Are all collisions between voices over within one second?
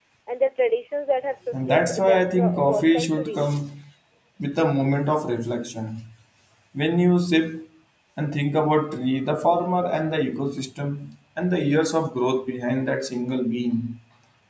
No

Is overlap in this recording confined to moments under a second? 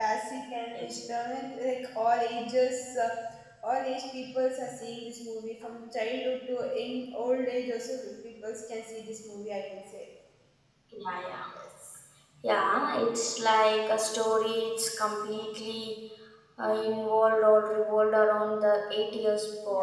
Yes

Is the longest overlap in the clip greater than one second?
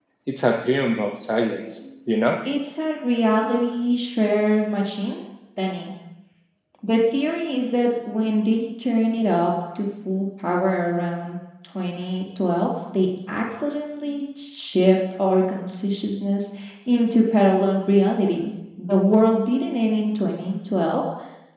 No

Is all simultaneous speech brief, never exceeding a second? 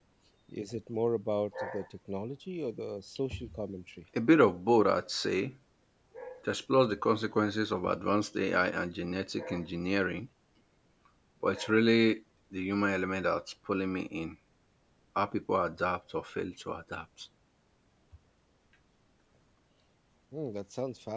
Yes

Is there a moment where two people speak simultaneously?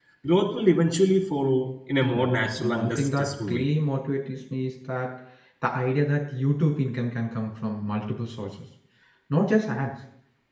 Yes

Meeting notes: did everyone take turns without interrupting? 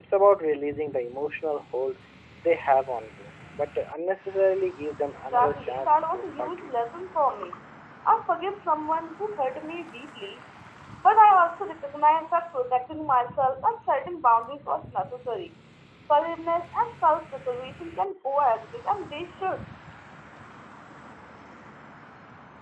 No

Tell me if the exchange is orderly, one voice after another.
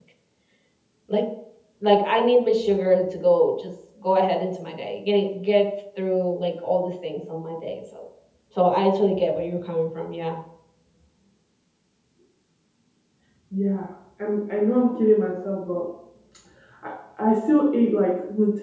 Yes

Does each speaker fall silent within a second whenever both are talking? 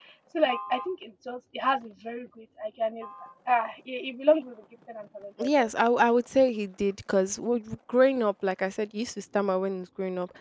Yes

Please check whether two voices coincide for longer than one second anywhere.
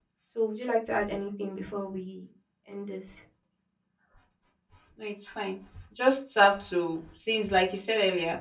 No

